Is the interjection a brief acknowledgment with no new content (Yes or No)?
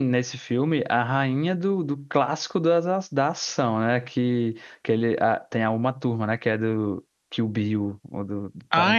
No